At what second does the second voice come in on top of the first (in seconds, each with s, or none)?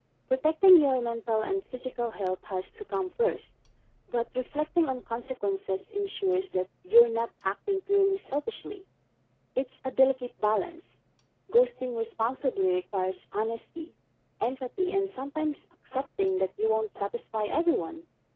none